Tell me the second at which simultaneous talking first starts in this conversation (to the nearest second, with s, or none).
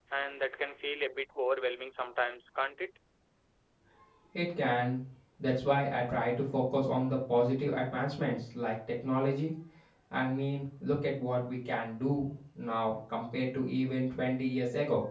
none